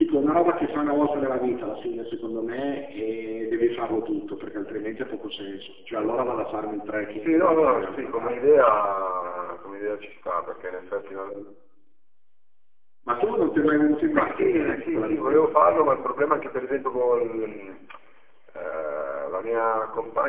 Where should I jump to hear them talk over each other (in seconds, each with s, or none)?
7.2 s